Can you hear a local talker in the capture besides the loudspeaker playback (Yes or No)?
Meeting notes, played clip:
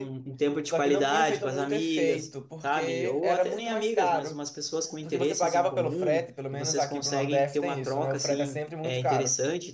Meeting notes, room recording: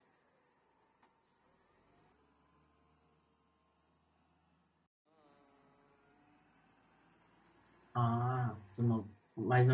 Yes